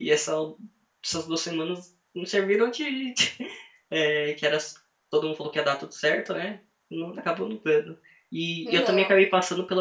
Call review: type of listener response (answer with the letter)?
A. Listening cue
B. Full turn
A